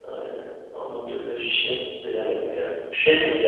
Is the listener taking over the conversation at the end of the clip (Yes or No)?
No